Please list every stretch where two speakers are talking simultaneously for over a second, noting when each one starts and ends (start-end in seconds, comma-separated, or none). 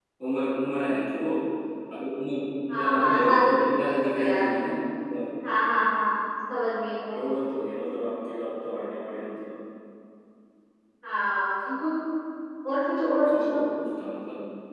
2.7-4.5